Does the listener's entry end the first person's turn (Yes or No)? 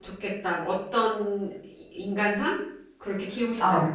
Yes